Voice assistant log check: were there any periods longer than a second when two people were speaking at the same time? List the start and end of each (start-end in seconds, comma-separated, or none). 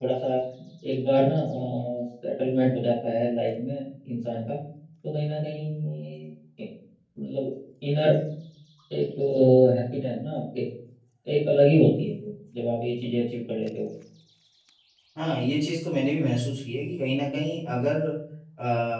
none